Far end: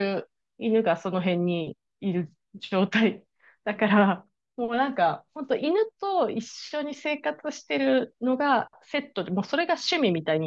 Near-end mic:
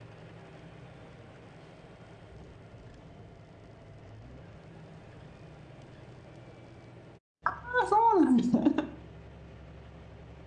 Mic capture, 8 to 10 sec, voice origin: user only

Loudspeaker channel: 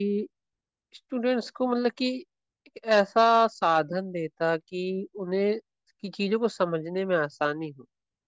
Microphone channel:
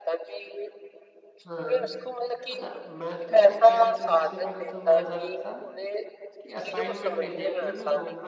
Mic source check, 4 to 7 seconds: both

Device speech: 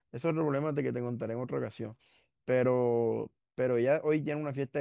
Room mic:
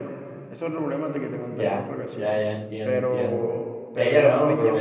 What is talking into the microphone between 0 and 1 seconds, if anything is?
echo only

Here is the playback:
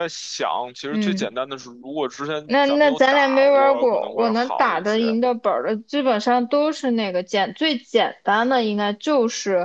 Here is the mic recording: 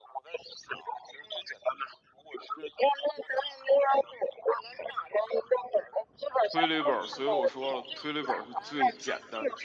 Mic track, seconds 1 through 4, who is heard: echo only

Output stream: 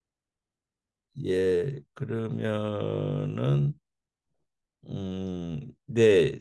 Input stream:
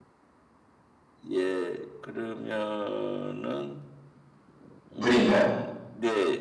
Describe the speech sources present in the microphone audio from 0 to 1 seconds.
neither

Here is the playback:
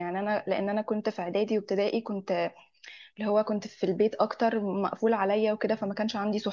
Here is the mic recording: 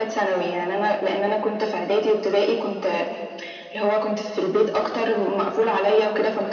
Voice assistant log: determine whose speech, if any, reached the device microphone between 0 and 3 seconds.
echo only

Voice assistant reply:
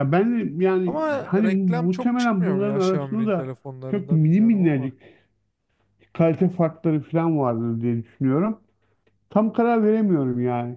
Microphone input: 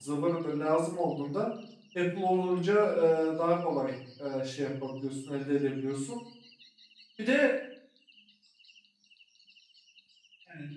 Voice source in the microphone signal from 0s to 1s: user only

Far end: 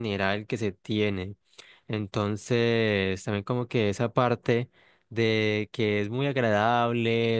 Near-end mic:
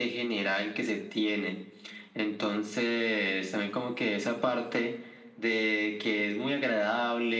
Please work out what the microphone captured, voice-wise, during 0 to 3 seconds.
echo only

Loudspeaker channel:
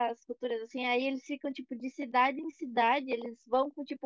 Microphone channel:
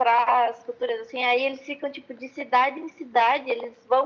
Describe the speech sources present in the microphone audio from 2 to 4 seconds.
echo only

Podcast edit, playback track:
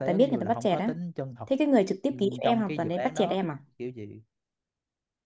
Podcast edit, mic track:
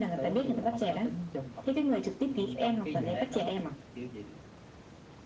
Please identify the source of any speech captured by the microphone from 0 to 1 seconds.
echo only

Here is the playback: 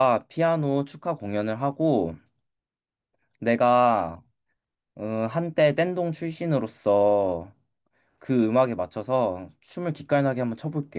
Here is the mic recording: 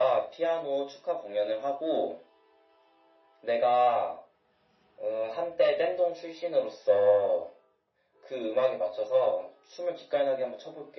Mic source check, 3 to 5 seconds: echo only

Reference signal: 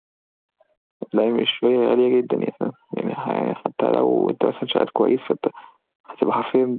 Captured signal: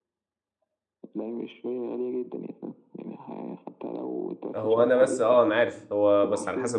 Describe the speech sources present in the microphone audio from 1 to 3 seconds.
echo only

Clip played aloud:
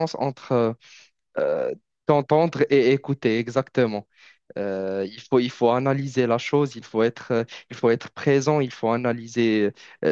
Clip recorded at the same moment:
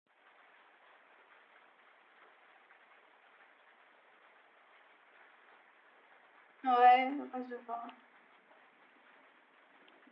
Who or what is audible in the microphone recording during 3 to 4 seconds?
neither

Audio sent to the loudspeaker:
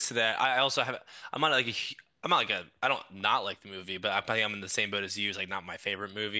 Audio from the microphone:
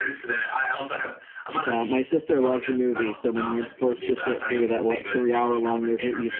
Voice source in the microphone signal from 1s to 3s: both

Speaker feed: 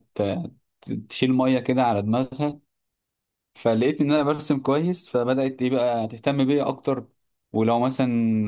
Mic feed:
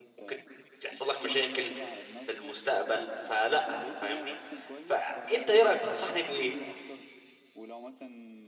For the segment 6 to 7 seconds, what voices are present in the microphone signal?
both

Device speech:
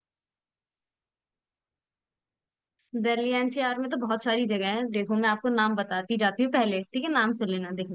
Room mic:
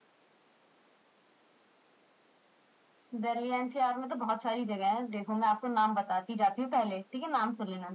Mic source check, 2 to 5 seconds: echo only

